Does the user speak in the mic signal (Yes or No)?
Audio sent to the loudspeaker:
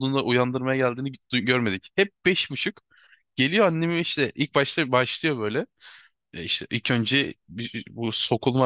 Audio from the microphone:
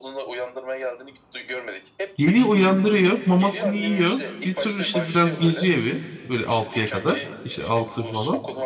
Yes